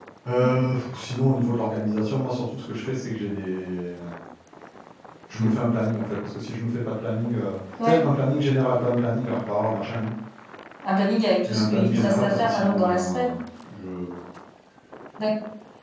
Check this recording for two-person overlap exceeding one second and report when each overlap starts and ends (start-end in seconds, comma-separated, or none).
11.4-13.3